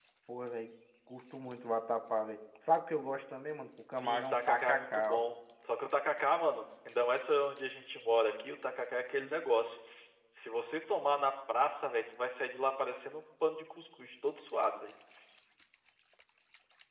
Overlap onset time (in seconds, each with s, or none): 3.9 s